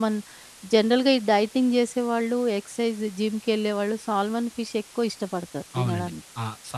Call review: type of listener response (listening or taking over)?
taking over